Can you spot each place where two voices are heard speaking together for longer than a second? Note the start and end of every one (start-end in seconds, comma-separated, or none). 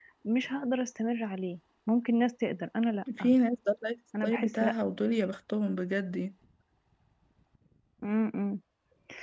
none